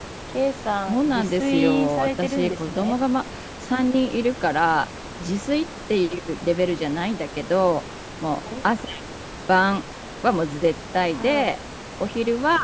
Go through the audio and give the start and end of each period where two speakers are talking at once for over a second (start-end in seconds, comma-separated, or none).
0.9-2.9